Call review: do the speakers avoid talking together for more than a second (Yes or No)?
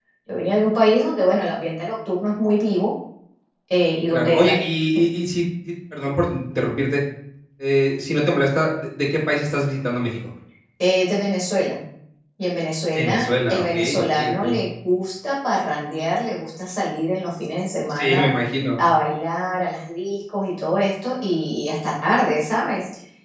No